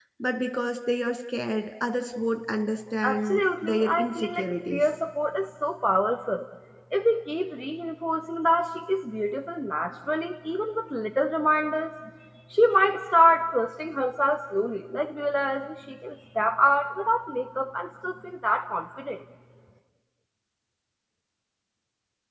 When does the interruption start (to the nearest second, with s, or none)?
3 s